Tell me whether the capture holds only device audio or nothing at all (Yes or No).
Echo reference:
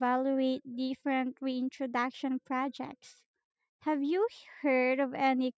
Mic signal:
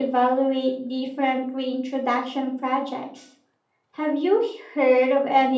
Yes